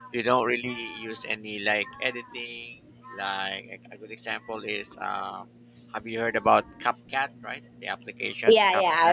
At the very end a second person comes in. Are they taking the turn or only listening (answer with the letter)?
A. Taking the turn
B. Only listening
A